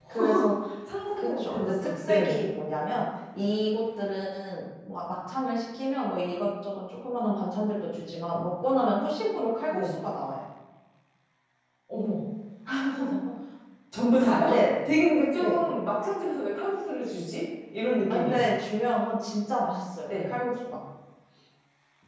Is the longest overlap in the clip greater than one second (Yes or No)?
Yes